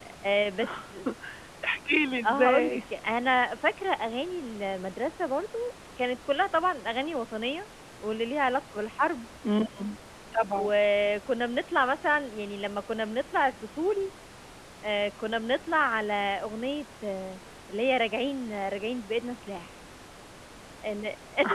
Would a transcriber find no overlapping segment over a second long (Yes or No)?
Yes